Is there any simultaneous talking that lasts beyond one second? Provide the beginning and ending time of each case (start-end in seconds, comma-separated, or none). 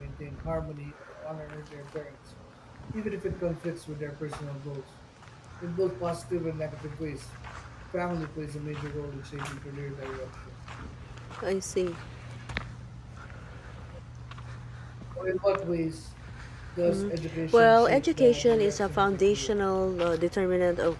17.5-19.6